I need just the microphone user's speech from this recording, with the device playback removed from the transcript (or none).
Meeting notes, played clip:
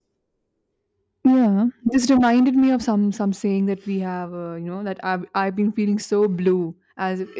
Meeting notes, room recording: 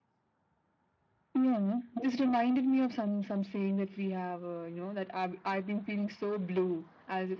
none